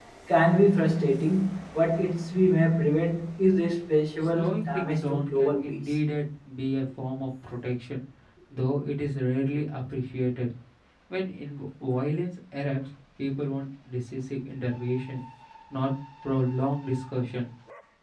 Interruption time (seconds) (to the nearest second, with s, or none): 4 s